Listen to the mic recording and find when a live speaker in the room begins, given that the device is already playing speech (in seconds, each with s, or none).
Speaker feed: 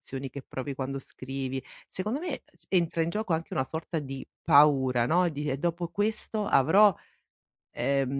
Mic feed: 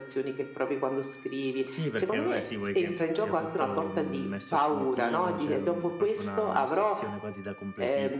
1.6 s